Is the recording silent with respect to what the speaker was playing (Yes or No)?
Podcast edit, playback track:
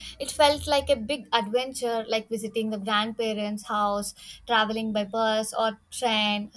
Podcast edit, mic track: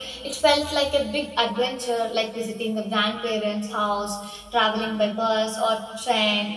No